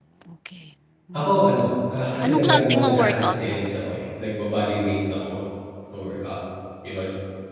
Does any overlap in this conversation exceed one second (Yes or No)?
Yes